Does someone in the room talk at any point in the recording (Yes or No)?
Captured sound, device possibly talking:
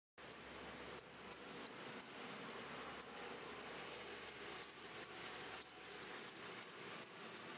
No